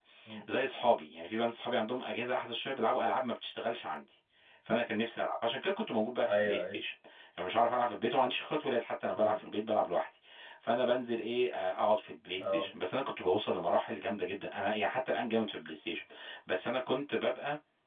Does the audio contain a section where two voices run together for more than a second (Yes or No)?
No